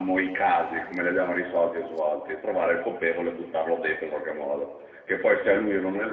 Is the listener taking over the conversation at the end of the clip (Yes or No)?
No